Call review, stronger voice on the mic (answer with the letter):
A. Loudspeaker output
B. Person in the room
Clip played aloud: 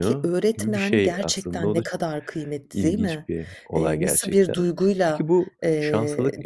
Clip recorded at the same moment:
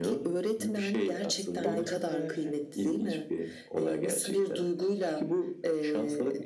A